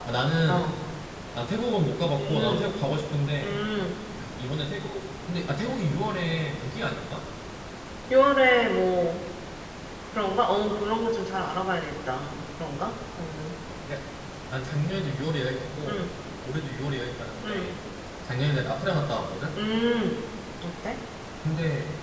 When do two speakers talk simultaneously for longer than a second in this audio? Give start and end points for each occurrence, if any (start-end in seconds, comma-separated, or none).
none